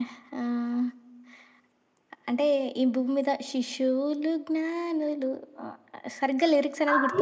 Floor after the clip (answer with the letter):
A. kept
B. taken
B